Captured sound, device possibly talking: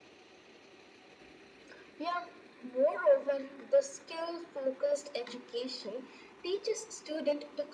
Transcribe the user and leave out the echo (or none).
none